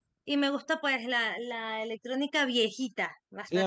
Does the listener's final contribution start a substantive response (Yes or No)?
Yes